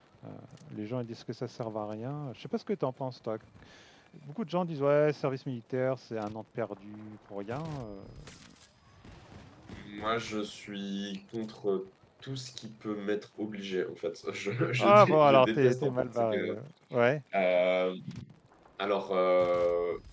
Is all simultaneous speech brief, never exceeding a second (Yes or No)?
No